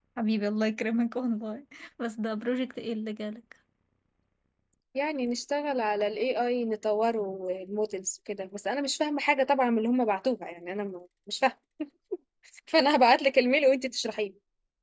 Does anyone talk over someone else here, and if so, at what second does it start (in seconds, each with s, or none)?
none